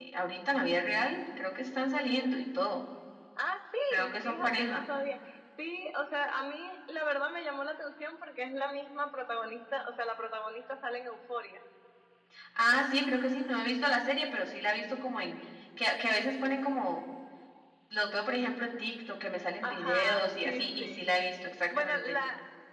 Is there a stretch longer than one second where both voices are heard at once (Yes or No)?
Yes